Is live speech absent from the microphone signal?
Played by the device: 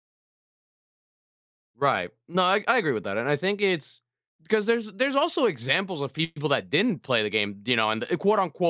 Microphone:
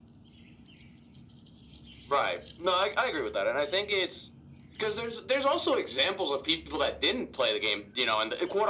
Yes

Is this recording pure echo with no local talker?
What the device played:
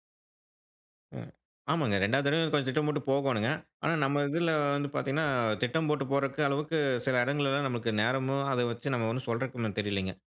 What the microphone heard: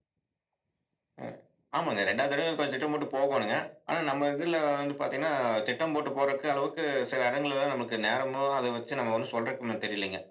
Yes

